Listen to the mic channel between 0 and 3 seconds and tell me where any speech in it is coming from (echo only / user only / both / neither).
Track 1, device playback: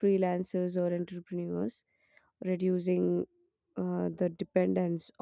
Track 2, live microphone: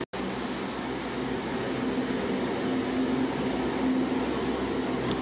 neither